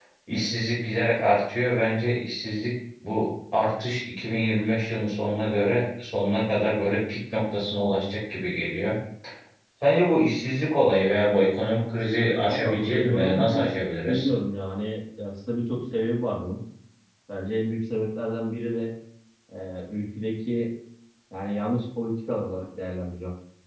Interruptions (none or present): present